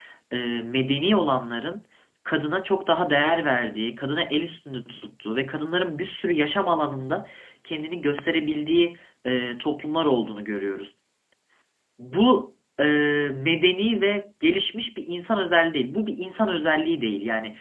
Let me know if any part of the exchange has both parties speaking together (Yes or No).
No